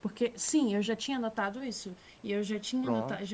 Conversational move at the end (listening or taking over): listening